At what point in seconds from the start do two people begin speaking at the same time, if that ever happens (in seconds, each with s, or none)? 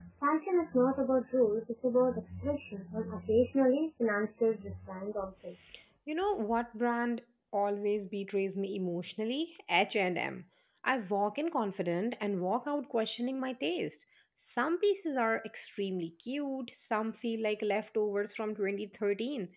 none